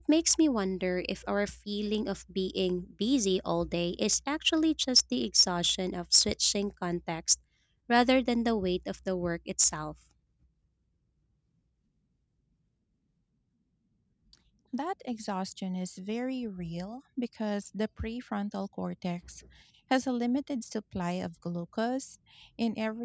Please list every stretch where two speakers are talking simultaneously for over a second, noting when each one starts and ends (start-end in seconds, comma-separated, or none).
none